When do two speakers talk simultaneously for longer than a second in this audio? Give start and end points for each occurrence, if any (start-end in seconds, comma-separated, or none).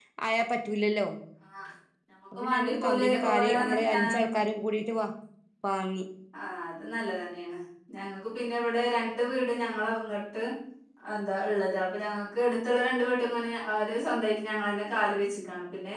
2.4-4.2